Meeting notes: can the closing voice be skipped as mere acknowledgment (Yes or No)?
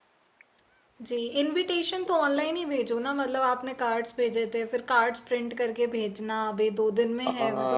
No